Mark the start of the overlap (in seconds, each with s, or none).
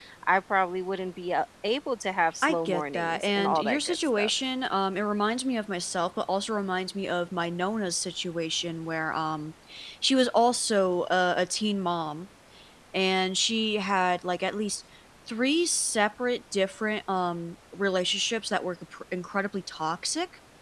2.4 s